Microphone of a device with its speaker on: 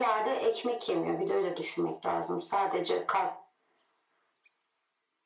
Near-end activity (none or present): none